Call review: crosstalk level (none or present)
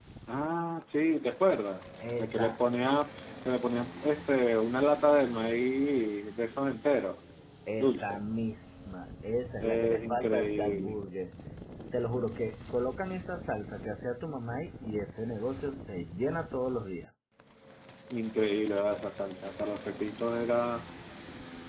present